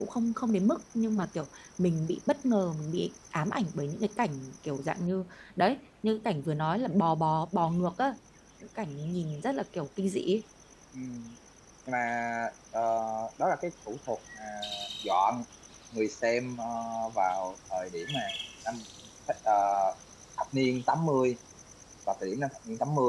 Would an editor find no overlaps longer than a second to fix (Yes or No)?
Yes